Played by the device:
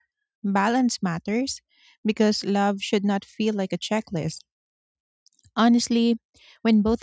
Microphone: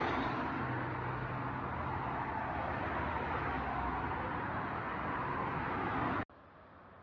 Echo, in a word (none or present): none